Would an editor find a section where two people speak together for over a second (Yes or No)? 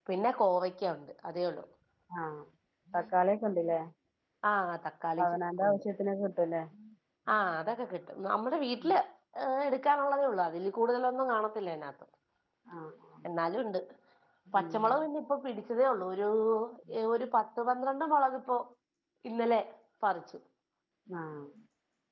No